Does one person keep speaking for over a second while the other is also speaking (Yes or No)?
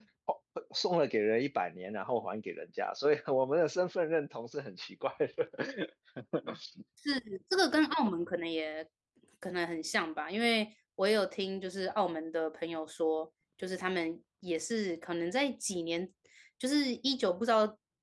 No